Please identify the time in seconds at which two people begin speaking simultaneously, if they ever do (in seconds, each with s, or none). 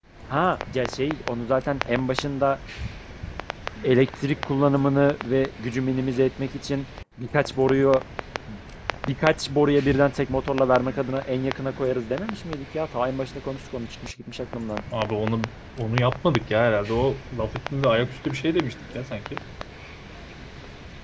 none